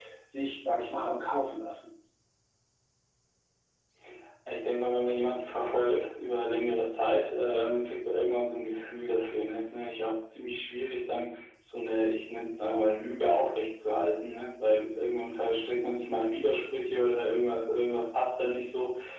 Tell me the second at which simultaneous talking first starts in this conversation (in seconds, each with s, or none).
none